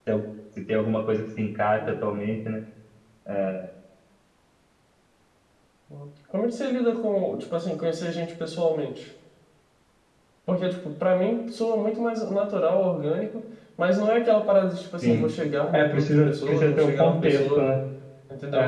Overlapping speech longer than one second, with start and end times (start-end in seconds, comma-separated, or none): 15.7-17.6